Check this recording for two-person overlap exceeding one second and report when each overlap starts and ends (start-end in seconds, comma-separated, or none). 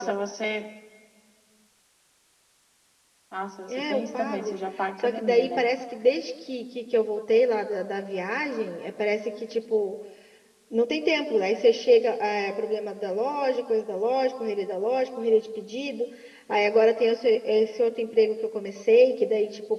3.7-5.6